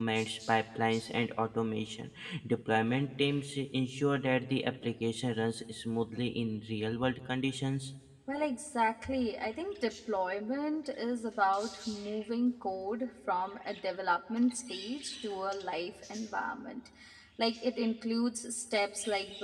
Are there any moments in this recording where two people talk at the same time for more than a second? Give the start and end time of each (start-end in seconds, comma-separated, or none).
none